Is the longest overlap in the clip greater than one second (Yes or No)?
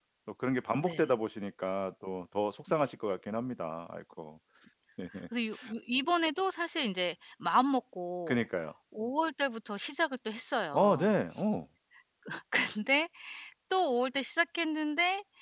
No